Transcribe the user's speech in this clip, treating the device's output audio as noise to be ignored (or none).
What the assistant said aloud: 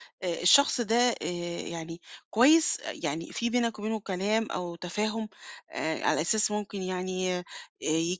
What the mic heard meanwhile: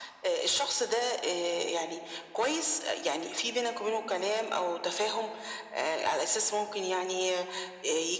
none